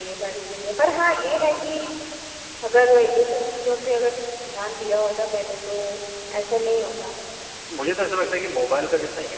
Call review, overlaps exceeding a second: none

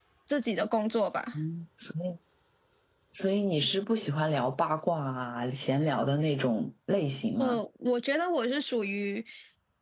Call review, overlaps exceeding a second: none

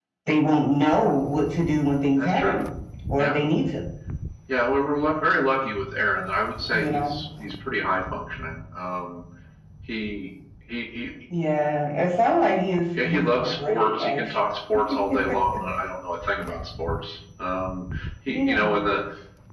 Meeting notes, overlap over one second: present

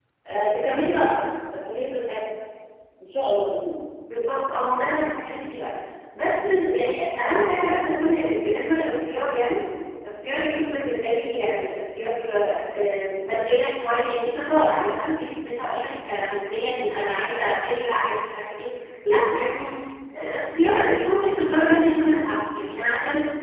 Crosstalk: none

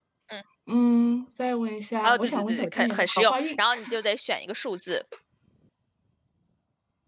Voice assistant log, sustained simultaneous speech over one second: present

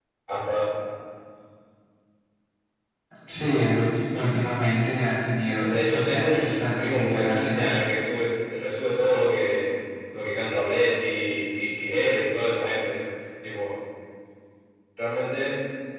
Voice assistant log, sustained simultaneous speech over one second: present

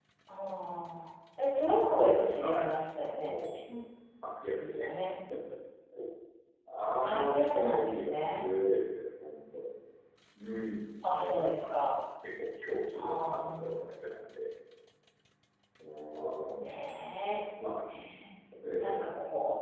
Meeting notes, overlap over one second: present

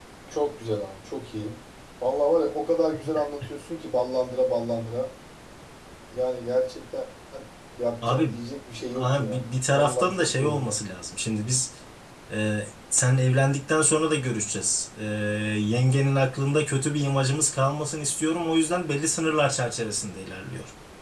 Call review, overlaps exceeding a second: present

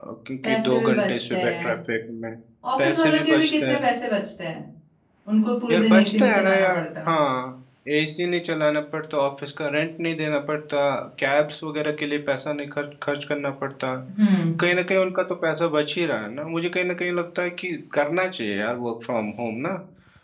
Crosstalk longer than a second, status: present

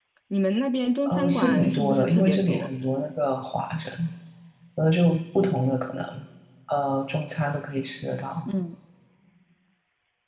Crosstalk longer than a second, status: present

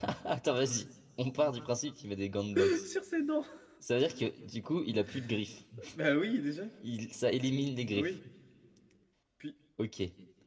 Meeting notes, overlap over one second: none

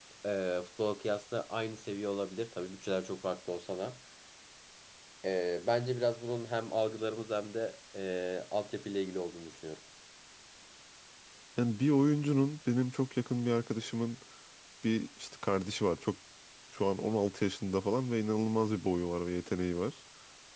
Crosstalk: none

